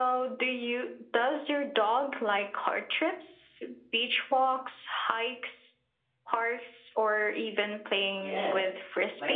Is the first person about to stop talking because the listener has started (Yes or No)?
Yes